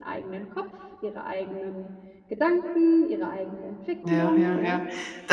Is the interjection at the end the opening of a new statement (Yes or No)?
Yes